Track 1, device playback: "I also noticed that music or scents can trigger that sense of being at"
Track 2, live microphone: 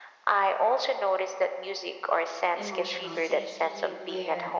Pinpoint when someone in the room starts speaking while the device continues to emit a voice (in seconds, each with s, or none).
2.5 s